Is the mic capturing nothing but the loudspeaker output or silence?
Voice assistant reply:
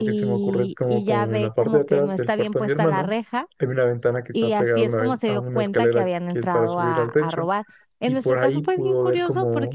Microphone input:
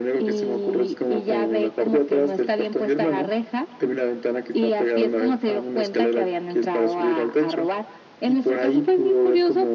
Yes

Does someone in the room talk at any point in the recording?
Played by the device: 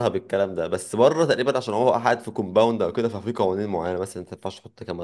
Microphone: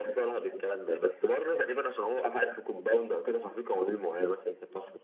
No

